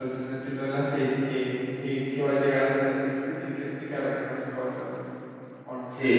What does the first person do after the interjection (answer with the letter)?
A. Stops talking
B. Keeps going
A